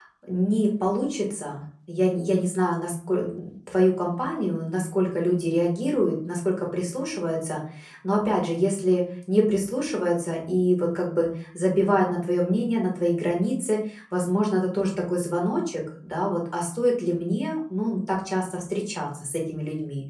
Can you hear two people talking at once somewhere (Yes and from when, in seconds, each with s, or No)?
No